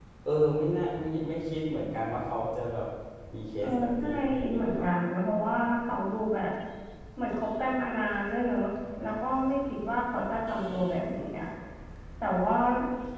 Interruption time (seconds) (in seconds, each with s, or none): 3.6 s